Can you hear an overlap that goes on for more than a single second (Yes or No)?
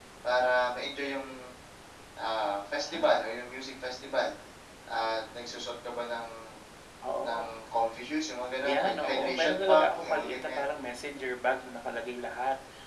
Yes